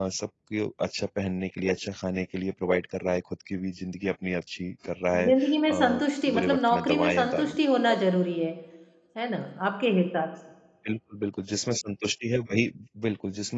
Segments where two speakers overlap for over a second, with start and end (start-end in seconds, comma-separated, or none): 5.1-7.6